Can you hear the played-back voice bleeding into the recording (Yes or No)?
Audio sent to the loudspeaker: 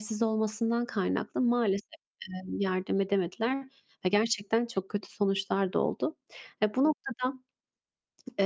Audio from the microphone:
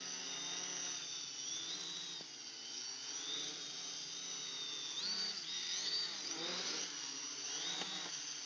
No